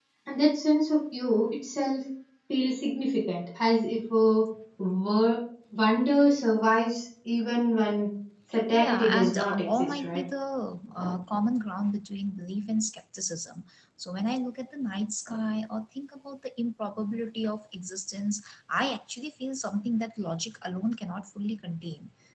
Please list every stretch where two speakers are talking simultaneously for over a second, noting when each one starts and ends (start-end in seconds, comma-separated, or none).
8.7-10.2